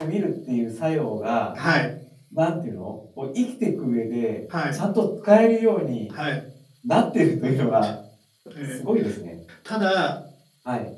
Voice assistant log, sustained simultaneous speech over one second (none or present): none